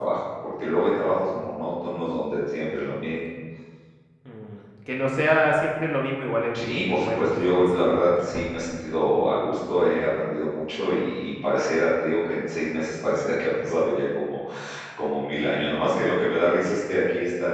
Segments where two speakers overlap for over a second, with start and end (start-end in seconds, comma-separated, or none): 6.5-8.3